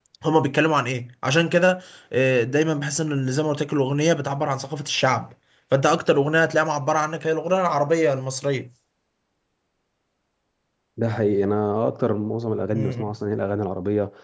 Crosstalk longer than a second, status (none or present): none